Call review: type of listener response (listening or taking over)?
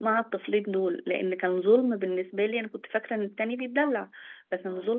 listening